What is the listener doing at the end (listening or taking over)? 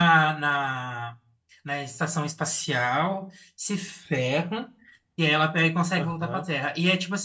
listening